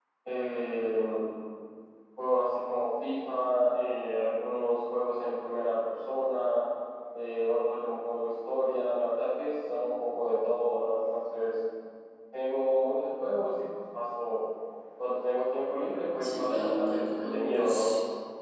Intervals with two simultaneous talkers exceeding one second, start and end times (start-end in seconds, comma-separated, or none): 16.2-17.8